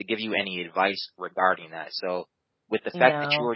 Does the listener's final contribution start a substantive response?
No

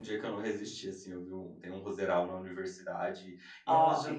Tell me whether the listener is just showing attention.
Yes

